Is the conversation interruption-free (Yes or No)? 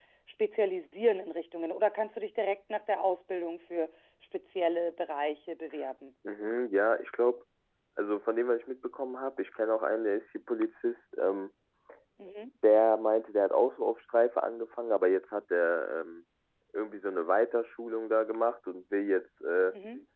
Yes